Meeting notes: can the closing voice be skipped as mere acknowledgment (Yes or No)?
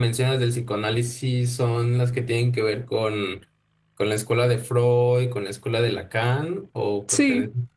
No